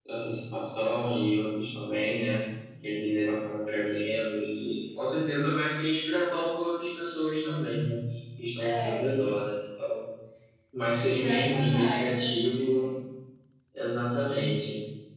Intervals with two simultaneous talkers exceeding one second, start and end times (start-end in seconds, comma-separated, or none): 11.0-12.3